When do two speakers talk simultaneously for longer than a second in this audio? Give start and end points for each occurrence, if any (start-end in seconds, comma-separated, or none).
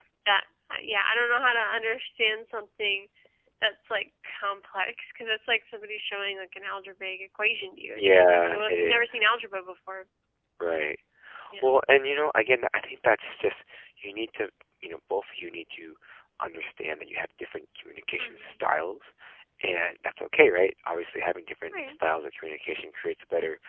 8.0-9.2